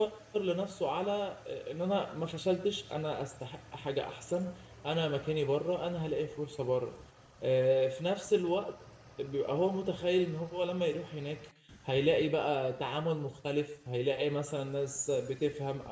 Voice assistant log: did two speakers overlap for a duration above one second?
No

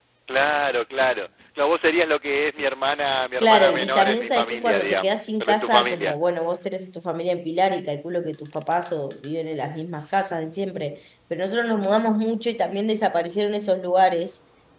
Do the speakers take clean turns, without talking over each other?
No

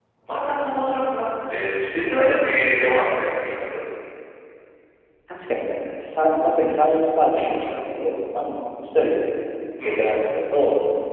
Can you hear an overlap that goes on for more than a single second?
No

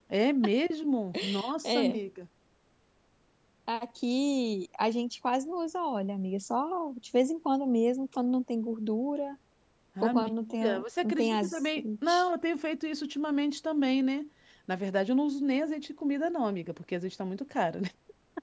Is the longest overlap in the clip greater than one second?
Yes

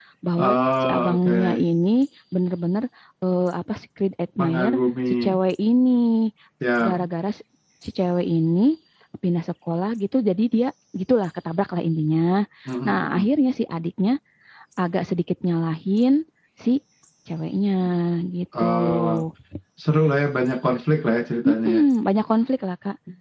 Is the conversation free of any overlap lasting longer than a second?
No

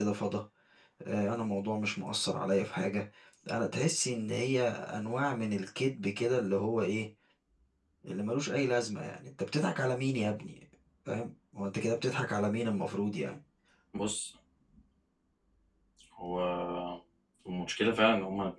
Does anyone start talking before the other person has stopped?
No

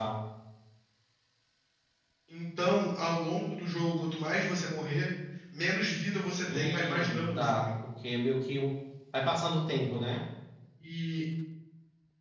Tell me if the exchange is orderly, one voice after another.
No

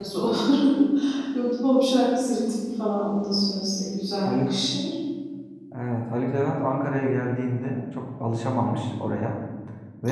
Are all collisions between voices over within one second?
Yes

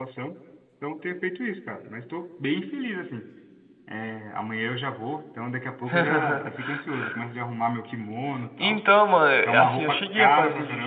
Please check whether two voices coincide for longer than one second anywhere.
Yes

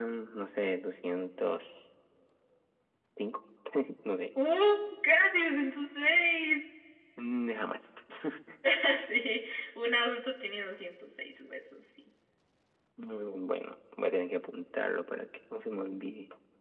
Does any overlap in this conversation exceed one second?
No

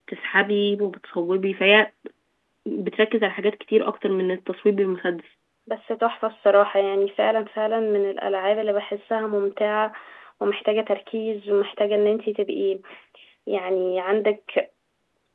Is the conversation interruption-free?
Yes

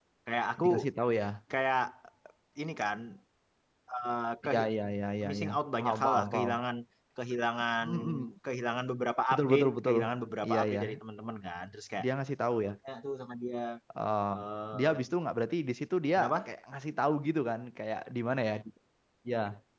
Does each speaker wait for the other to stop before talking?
No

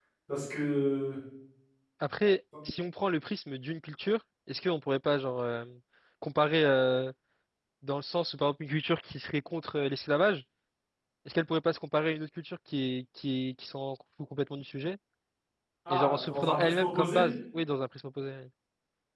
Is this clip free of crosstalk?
No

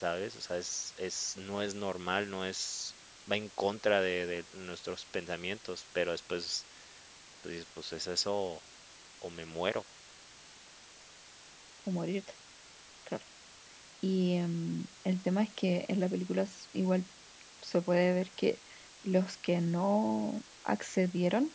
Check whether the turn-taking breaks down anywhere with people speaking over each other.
No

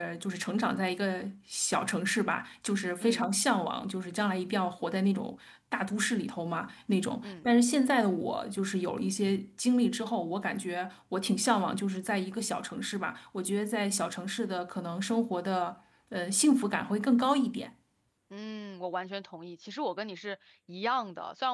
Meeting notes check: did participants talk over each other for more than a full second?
No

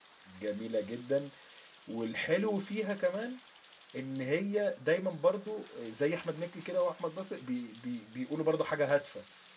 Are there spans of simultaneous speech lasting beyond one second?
No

